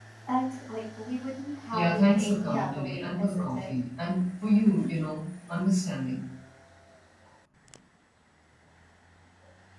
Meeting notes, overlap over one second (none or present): present